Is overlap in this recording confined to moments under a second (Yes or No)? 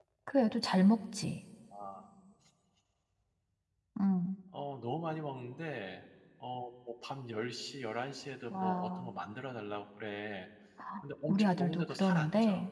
No